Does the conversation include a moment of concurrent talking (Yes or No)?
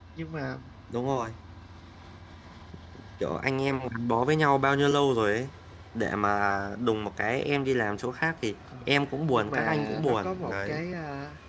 Yes